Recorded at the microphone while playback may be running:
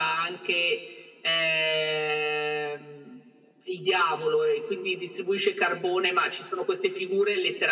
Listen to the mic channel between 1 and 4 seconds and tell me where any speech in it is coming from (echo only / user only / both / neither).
echo only